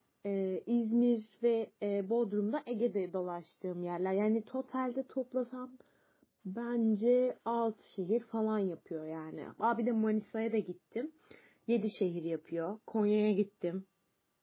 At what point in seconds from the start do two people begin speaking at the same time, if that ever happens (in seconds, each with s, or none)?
none